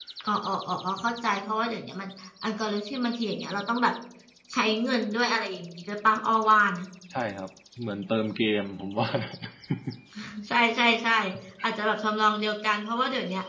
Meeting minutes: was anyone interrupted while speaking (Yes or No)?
No